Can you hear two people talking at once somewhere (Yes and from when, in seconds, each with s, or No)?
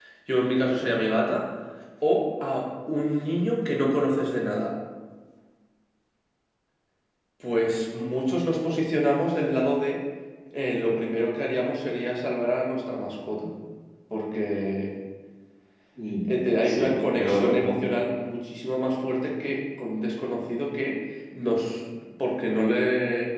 Yes, from 16.3 s